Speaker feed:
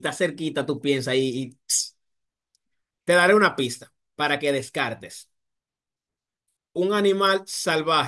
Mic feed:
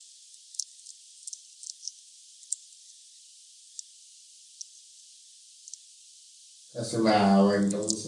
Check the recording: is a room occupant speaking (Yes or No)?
Yes